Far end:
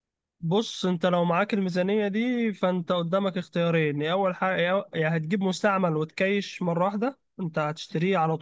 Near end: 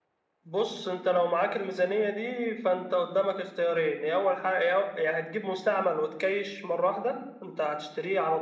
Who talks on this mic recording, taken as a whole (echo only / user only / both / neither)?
echo only